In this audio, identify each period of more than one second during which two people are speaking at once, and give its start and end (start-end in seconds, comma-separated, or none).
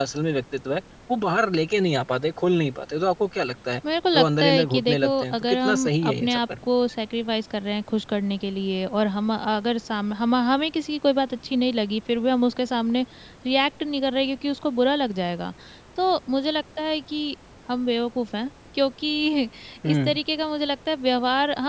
4.1-6.4